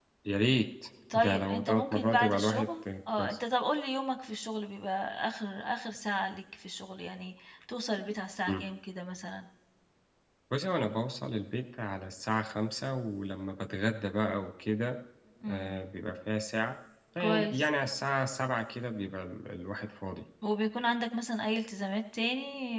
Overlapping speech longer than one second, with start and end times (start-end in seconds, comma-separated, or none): 1.1-2.7